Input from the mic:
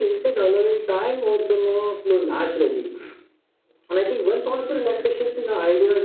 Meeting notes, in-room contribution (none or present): none